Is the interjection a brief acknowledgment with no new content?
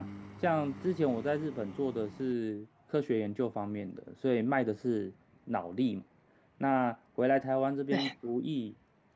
Yes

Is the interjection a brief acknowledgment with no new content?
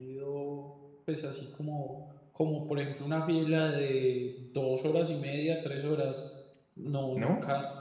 Yes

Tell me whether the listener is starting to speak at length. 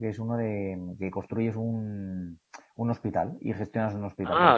Yes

